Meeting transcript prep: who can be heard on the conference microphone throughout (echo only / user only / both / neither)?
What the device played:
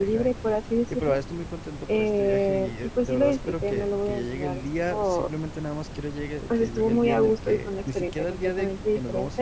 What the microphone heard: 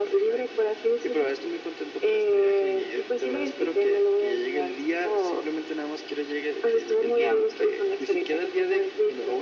echo only